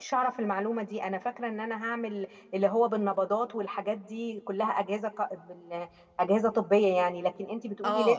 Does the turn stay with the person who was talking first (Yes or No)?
No